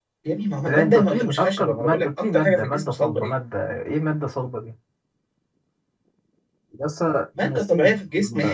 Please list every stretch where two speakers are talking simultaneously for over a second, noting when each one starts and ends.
0.7-3.4

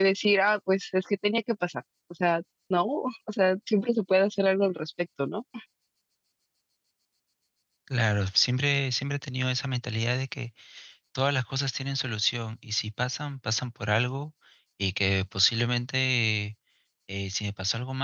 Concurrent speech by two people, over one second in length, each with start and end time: none

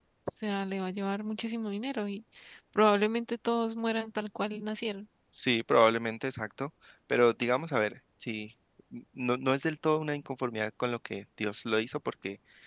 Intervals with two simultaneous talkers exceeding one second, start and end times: none

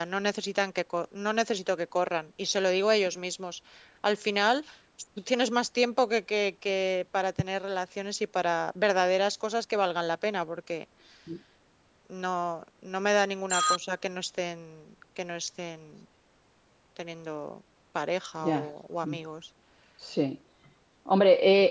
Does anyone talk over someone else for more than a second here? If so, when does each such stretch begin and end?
none

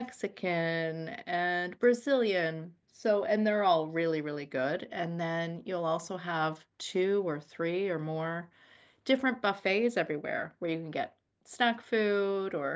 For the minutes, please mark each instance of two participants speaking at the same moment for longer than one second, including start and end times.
none

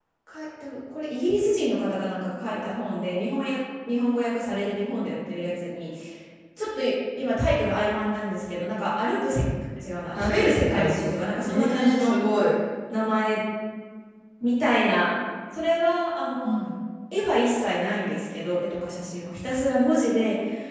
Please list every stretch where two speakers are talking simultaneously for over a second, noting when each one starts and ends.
10.1-12.1

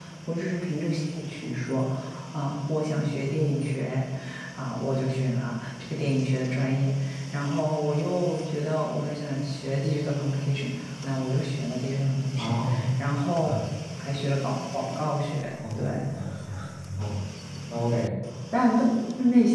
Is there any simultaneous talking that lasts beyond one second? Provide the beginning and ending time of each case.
none

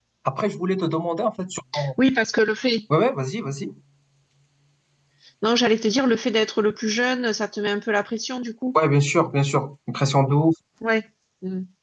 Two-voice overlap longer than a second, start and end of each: none

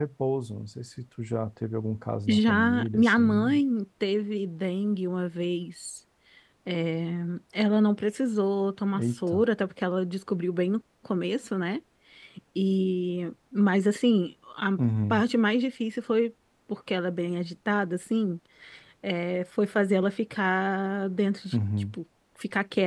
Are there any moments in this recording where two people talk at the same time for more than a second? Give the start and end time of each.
2.3-3.6

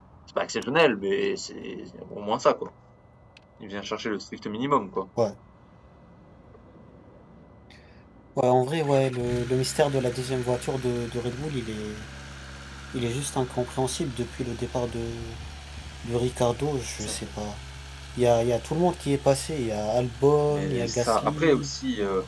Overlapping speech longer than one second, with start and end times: 20.5-21.7

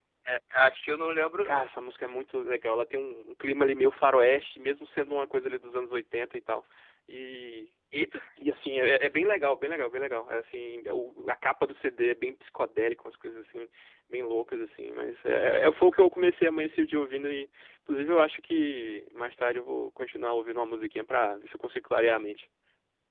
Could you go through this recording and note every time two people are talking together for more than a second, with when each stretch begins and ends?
none

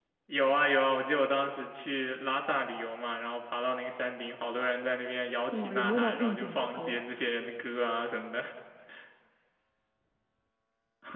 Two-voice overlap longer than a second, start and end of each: 5.5-7.0

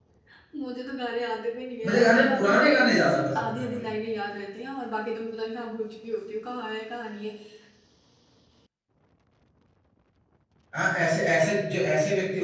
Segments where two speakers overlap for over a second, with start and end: 1.8-3.9

